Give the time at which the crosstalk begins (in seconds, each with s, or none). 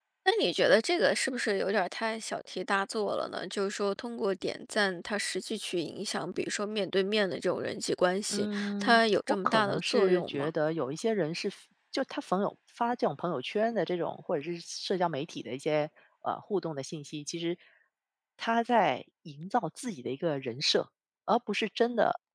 8.3 s